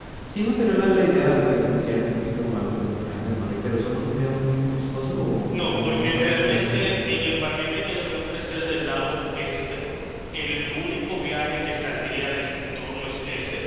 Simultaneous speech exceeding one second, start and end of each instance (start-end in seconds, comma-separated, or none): 5.6-6.9